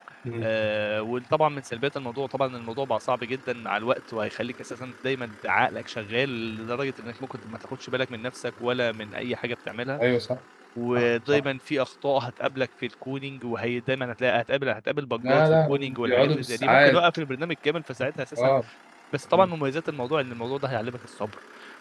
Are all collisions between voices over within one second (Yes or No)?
No